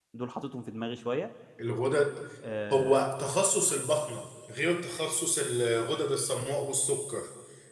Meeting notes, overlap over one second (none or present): none